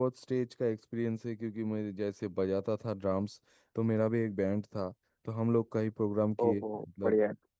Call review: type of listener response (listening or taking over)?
listening